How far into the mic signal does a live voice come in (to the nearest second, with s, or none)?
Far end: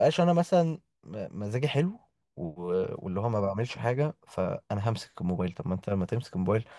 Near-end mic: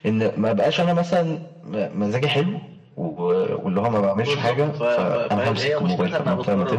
4 s